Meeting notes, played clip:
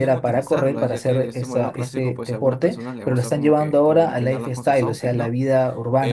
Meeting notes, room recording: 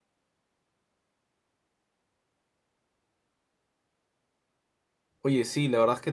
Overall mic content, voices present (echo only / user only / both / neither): user only